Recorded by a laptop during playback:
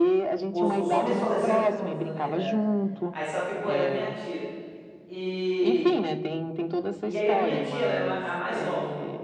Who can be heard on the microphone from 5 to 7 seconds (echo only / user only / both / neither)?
both